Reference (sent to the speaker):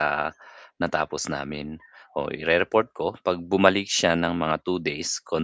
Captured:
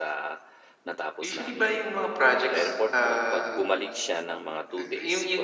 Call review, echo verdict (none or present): present